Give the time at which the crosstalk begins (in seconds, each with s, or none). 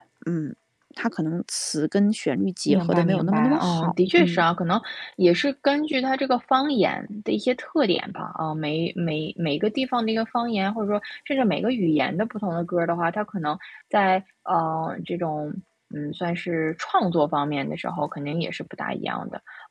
2.7 s